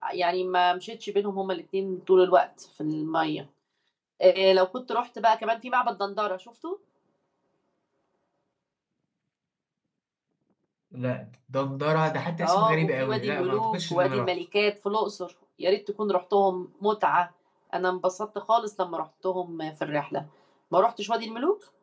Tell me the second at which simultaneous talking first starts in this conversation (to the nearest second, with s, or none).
12 s